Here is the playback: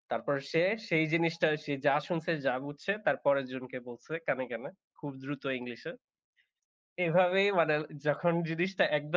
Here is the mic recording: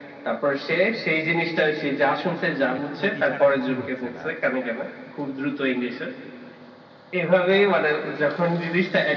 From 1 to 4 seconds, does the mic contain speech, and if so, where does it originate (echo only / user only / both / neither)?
both